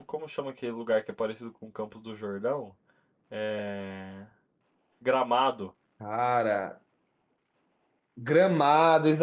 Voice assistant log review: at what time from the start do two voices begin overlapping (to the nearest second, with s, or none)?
none